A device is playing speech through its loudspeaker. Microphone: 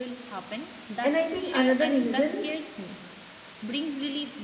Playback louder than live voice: No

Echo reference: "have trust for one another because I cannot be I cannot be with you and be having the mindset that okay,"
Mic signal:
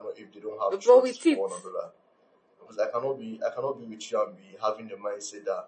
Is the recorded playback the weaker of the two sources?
Yes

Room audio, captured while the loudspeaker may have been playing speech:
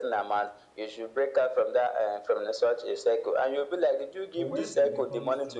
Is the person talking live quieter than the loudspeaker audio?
Yes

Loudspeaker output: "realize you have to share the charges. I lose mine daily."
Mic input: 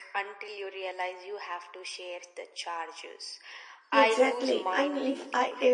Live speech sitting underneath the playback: No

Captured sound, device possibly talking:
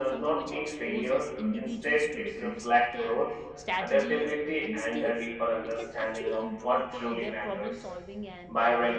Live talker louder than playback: No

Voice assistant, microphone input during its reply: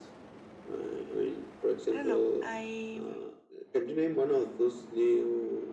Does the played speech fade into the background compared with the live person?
No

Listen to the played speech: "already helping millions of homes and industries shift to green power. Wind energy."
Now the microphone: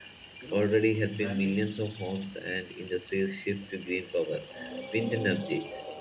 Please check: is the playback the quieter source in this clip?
No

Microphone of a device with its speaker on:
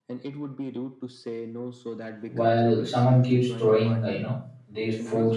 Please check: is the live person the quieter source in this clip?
No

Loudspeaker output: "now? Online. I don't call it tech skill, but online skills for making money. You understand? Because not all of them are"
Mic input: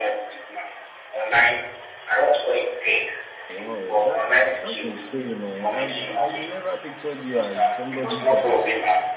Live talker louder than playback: No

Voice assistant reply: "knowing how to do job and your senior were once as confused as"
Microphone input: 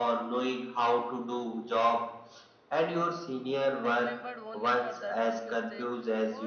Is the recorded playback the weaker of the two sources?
No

